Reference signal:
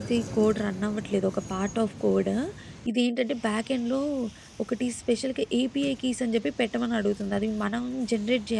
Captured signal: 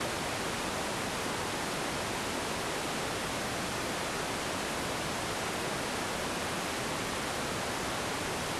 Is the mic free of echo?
Yes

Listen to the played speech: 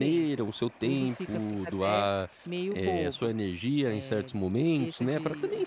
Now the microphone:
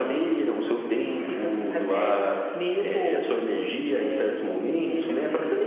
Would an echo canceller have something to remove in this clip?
Yes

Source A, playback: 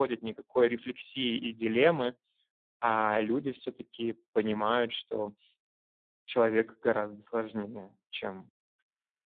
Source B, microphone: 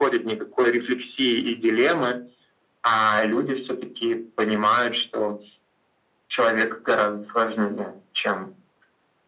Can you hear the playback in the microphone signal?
Yes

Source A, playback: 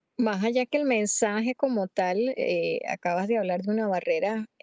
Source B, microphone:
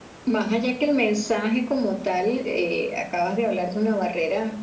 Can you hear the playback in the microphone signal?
Yes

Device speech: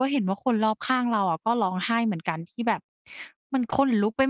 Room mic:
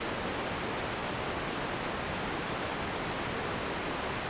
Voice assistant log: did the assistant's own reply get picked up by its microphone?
No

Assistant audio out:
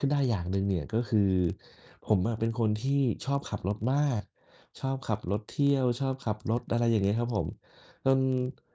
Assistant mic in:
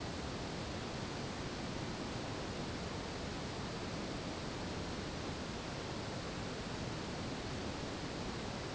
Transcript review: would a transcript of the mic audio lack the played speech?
Yes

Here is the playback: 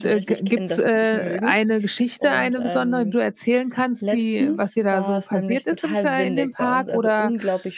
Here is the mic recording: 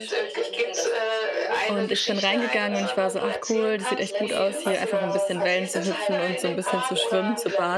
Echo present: Yes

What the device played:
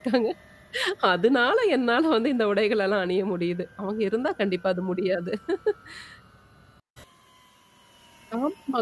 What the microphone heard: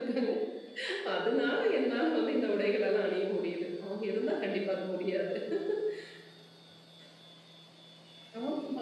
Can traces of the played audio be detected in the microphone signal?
Yes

